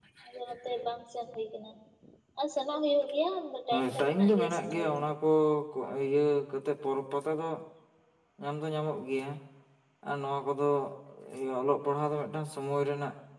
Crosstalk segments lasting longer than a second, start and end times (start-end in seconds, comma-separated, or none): 3.7-5.0